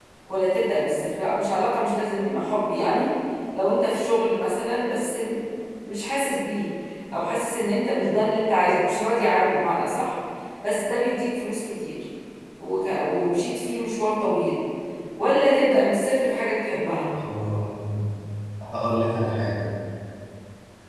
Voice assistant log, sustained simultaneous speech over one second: none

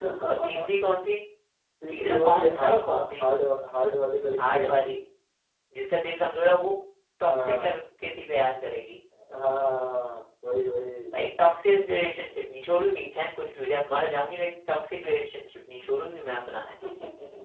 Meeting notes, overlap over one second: present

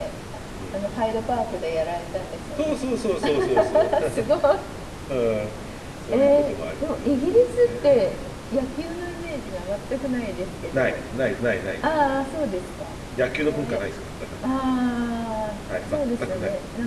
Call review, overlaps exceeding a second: present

